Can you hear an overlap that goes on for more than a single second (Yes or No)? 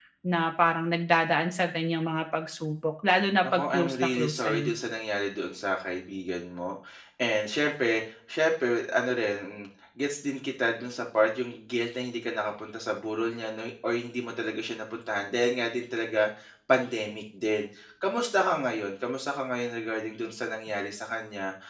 Yes